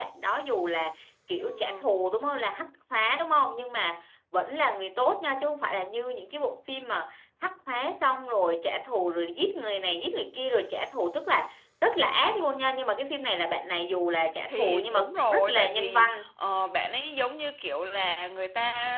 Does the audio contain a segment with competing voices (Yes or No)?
Yes